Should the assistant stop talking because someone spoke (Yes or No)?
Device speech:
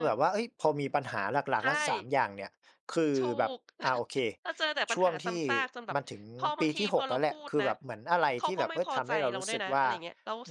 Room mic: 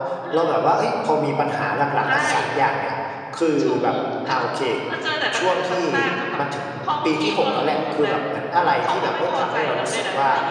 No